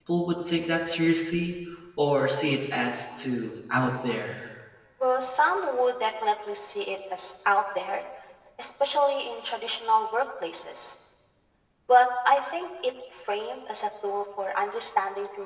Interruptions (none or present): none